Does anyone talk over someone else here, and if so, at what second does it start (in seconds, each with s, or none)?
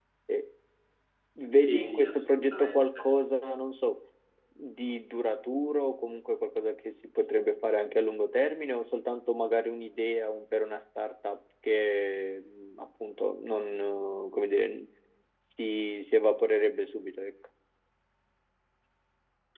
1.7 s